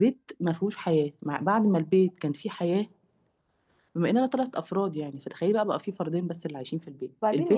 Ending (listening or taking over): taking over